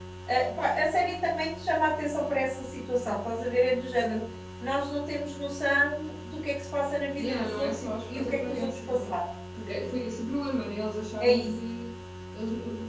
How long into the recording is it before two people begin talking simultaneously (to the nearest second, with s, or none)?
7 s